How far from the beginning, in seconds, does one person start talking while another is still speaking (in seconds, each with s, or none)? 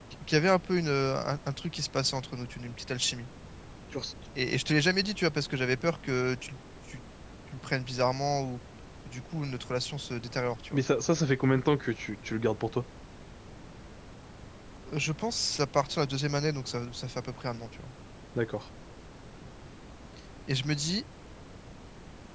none